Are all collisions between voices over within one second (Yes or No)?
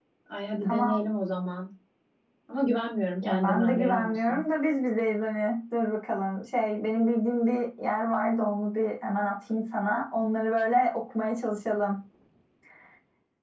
No